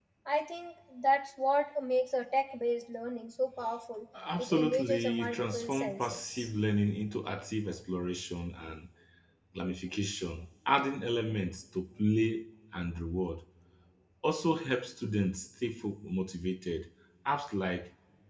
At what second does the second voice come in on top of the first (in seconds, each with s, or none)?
4.1 s